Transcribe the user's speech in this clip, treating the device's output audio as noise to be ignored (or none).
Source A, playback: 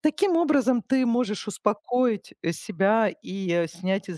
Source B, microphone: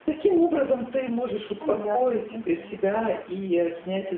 Наверно. Мгм.